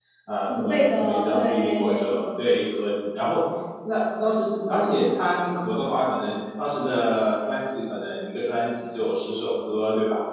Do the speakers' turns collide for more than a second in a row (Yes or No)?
Yes